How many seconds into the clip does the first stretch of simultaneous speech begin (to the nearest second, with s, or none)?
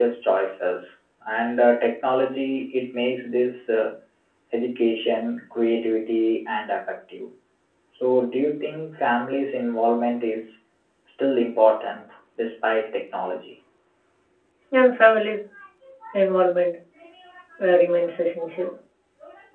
none